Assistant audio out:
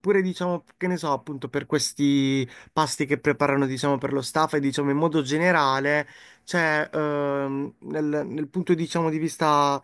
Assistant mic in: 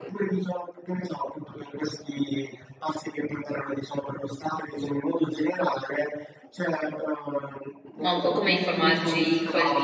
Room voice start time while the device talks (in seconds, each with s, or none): 8.0 s